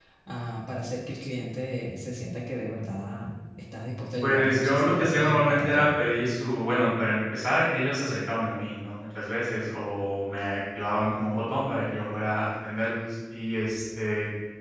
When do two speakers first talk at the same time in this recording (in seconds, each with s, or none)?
4.2 s